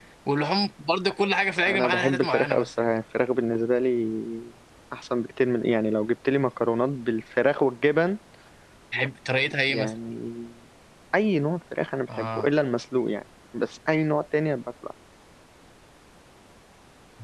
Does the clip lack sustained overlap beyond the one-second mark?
No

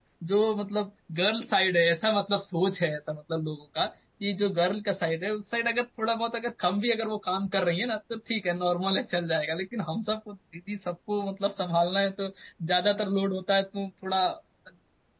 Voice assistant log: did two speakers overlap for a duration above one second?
No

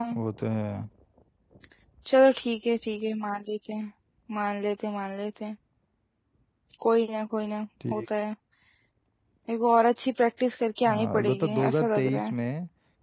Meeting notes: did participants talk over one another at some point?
Yes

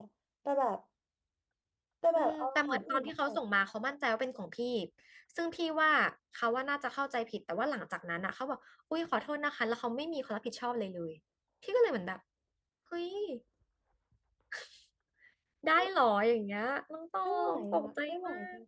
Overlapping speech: Yes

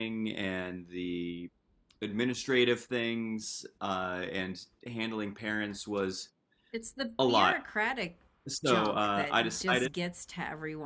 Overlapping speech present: Yes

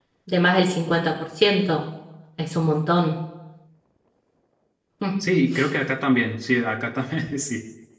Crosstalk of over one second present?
No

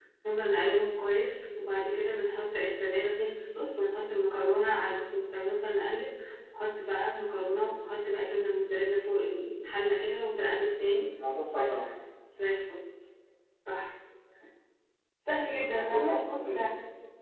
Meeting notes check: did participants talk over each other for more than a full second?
Yes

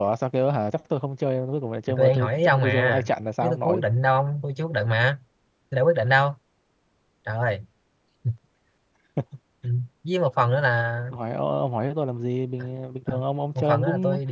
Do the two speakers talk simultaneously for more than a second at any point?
Yes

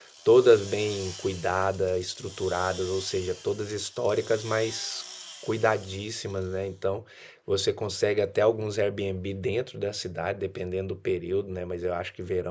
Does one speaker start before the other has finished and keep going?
No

